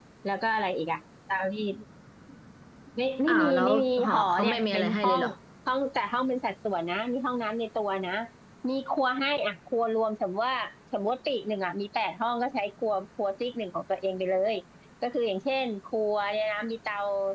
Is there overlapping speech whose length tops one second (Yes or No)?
Yes